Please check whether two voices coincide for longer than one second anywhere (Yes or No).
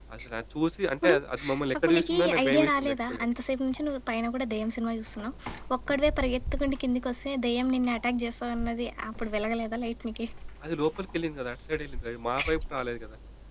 Yes